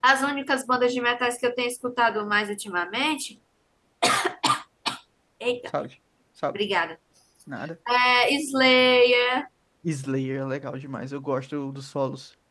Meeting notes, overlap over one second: none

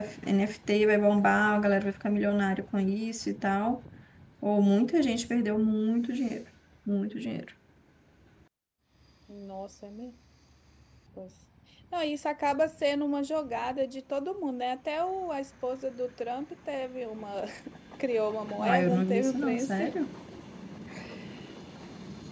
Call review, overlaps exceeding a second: present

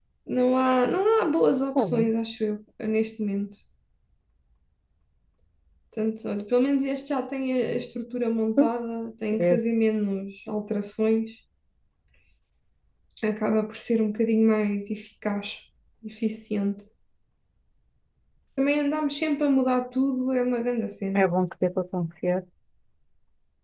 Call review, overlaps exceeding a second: none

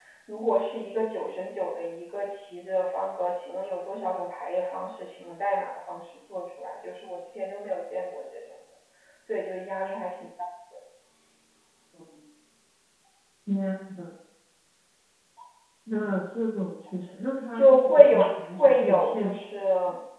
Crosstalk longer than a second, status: present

